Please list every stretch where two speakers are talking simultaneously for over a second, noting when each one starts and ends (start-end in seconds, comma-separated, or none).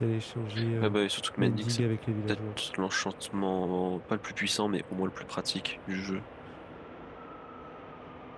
none